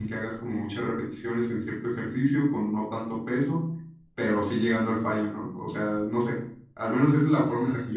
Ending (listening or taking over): listening